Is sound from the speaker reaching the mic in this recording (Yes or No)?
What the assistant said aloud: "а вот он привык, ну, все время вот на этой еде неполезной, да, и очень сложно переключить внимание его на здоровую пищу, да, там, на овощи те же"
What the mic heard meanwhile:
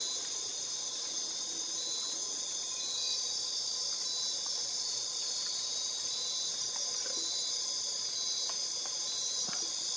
No